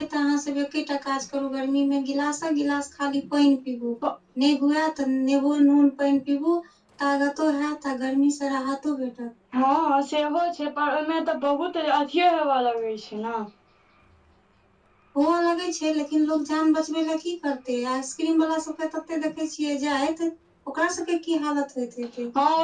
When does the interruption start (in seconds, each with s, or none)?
none